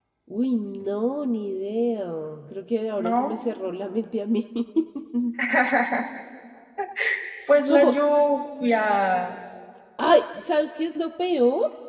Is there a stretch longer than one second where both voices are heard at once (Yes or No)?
No